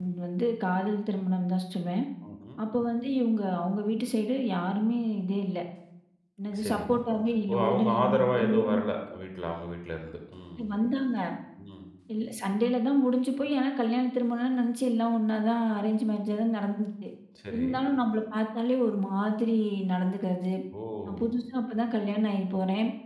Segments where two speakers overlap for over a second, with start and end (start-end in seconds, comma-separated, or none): 7.5-8.7